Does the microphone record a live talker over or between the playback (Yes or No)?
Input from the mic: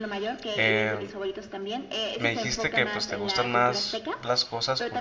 Yes